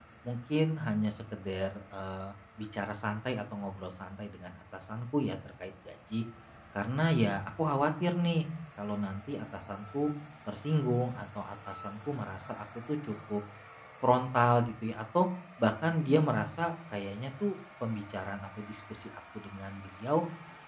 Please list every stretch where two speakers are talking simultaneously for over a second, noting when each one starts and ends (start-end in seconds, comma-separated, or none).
none